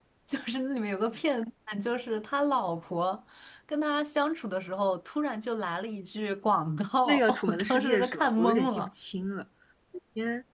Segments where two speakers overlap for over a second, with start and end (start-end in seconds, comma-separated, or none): 7.0-8.9